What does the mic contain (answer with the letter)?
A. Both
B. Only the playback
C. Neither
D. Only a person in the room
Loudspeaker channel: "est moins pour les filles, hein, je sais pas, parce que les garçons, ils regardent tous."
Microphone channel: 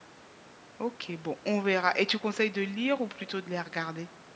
D